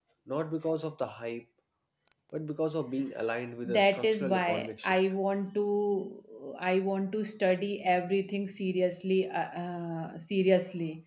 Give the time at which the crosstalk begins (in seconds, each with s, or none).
3.6 s